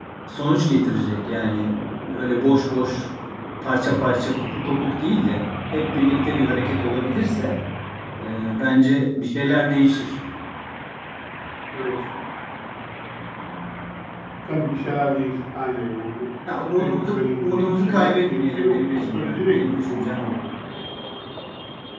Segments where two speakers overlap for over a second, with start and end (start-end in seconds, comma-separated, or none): 16.8-20.3